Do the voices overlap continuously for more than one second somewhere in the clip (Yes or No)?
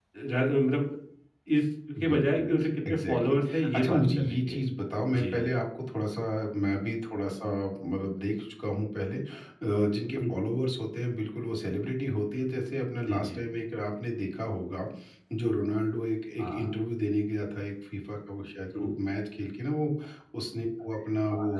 Yes